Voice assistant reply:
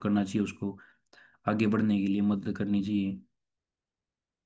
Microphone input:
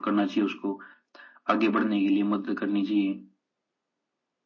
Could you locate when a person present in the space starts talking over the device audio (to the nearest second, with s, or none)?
none